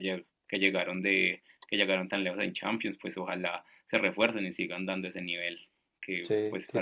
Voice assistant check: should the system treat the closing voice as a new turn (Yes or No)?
No